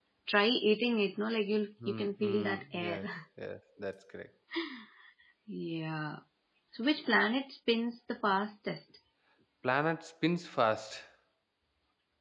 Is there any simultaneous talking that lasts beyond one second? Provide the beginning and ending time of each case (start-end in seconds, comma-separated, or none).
1.9-3.1